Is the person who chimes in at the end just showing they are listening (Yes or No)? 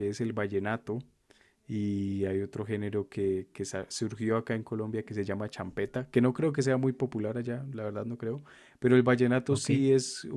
Yes